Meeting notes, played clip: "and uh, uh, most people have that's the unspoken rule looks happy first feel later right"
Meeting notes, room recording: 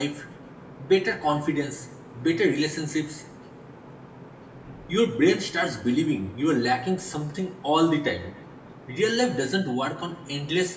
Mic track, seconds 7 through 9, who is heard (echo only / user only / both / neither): user only